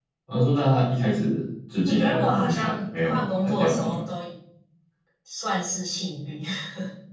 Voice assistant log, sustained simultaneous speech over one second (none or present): present